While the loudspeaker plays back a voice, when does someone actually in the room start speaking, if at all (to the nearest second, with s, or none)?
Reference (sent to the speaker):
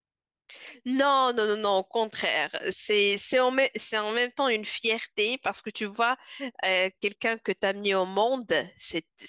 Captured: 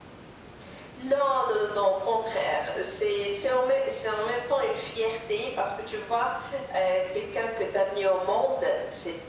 none